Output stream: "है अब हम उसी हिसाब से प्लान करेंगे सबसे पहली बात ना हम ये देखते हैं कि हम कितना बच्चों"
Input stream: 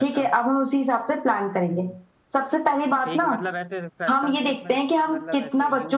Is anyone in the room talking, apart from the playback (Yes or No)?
Yes